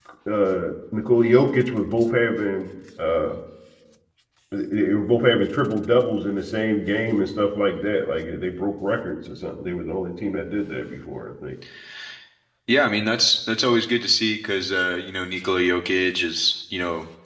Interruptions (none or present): none